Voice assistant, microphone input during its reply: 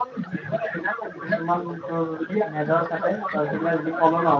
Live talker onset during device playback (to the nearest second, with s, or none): 1 s